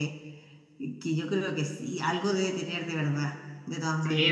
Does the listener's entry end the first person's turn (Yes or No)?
Yes